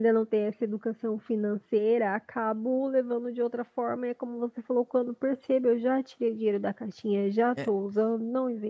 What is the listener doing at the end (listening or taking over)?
listening